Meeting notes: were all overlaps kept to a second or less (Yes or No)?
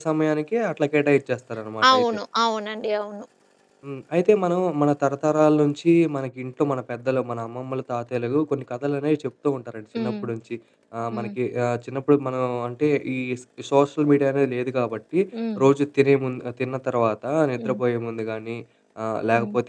Yes